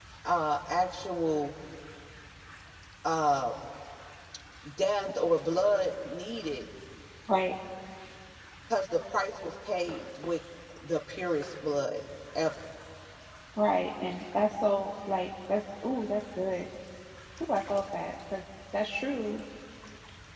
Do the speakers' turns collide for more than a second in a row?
No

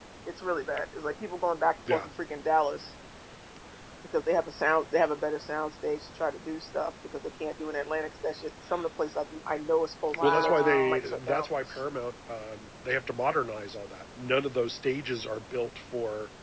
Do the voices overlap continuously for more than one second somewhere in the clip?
Yes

